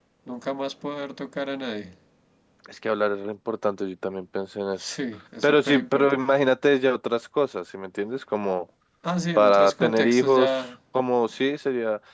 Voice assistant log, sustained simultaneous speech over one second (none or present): present